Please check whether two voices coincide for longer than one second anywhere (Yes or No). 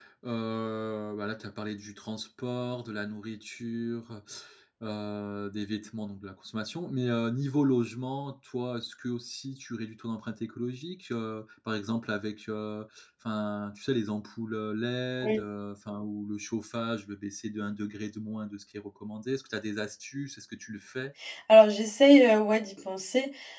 No